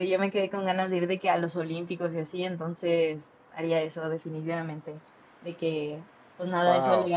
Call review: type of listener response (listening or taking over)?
listening